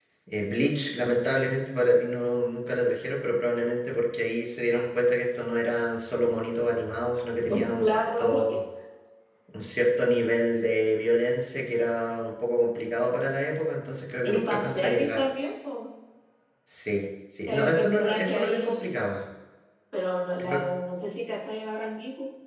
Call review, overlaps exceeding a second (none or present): present